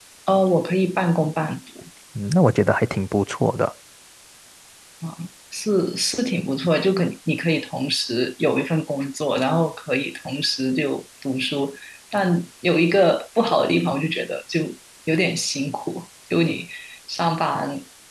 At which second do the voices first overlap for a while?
none

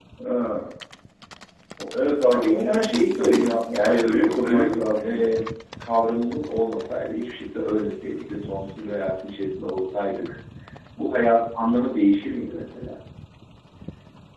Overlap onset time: 2.3 s

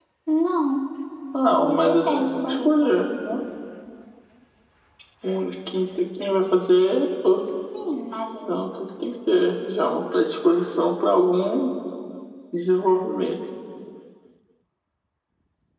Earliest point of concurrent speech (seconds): 1.4 s

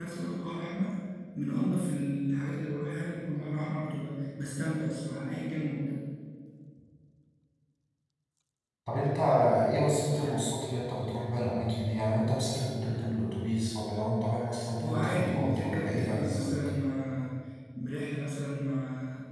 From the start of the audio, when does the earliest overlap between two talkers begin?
14.8 s

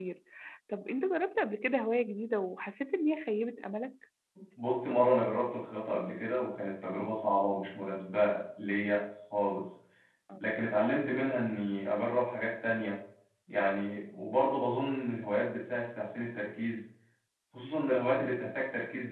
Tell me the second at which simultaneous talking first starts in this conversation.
none

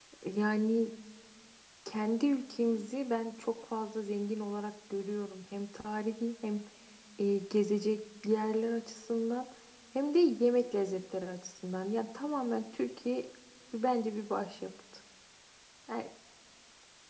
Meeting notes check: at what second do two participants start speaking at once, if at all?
none

